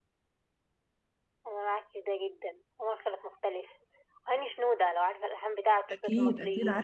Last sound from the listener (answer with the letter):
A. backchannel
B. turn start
B